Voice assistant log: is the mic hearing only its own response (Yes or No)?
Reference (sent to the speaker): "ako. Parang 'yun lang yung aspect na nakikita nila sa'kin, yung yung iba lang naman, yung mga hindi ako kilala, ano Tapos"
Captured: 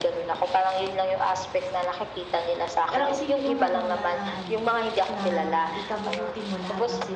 No